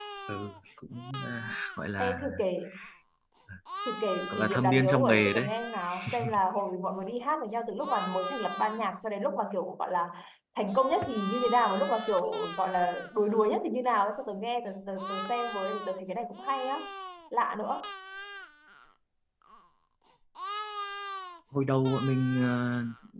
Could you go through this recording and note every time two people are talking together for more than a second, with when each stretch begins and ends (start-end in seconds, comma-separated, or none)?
4.3-5.5